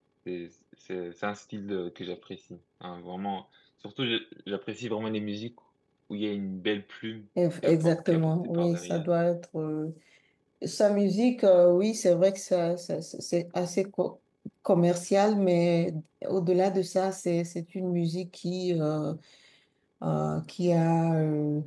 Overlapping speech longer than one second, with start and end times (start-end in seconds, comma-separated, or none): 7.6-9.1